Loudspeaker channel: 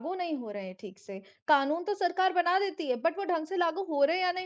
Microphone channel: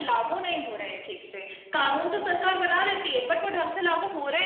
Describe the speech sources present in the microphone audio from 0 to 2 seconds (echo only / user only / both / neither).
echo only